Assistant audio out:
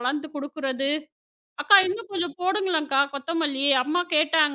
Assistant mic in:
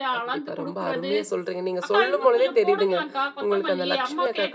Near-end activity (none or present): present